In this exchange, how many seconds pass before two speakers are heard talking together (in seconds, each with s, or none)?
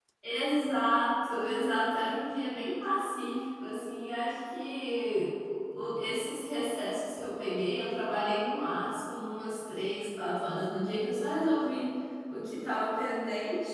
none